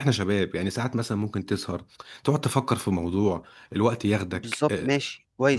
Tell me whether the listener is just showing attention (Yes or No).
No